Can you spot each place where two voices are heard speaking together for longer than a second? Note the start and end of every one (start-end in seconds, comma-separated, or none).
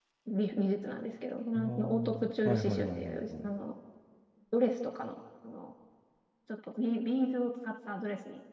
1.6-3.5